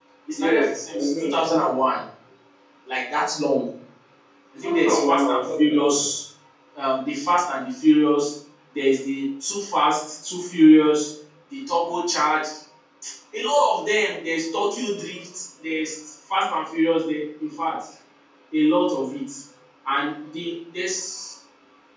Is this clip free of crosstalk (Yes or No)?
No